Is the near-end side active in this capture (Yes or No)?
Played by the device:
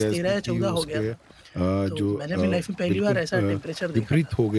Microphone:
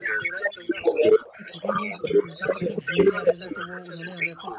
Yes